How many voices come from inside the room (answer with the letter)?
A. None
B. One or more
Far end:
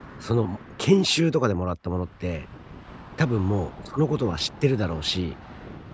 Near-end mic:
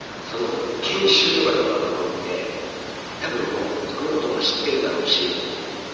A